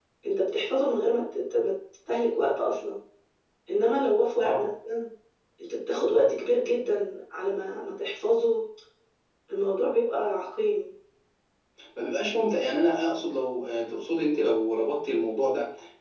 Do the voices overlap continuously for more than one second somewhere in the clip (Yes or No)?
No